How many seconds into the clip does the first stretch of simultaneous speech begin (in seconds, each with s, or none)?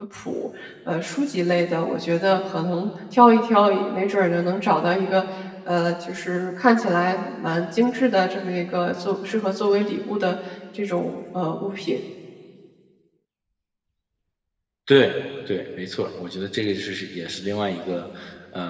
none